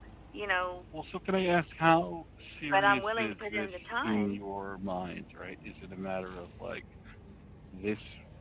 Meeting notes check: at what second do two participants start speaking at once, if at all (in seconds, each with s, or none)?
2.7 s